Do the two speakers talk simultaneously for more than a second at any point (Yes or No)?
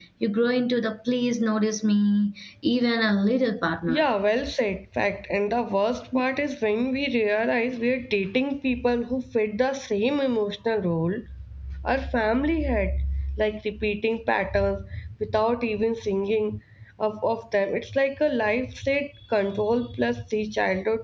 No